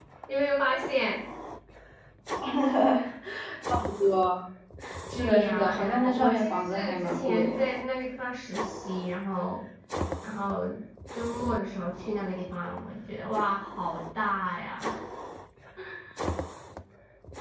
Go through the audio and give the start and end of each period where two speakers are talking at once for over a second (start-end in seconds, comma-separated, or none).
5.1-7.7